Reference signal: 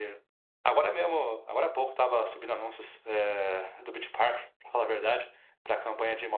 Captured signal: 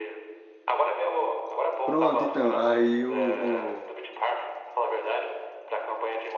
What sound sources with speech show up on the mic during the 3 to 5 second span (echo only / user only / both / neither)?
both